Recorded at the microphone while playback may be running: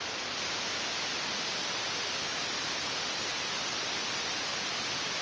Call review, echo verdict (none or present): none